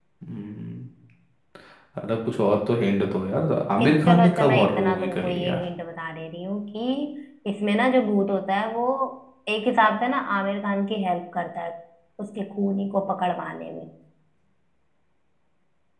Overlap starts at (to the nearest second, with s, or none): 4 s